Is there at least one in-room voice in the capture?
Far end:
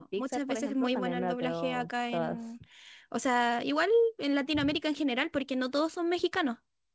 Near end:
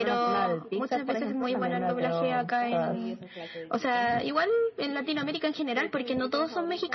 Yes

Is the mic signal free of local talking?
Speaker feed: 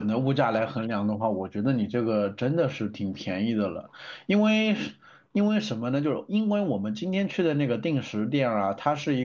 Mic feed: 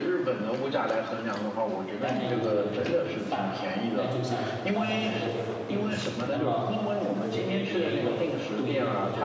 No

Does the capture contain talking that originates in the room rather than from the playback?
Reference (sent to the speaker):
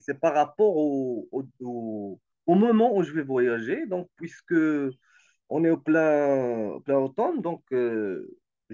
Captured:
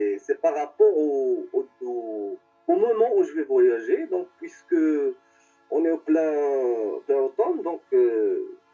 No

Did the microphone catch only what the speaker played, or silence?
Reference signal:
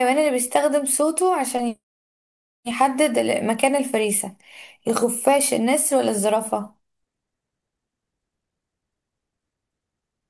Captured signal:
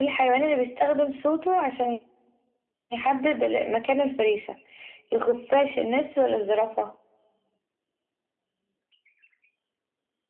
Yes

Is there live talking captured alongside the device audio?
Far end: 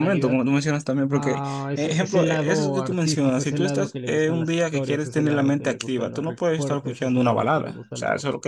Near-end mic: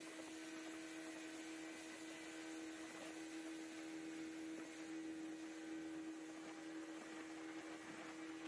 No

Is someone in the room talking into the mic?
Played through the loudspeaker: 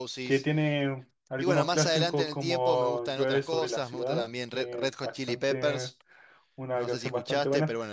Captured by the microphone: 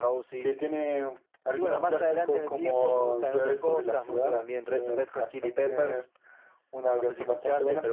No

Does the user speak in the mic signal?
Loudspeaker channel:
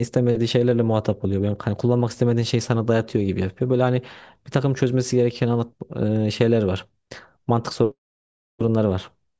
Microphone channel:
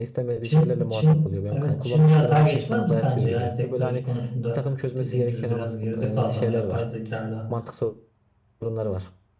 Yes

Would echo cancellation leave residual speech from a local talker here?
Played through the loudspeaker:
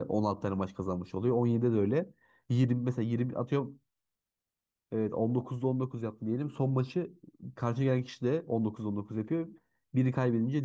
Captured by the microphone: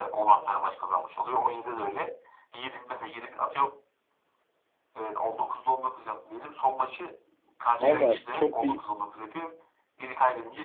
Yes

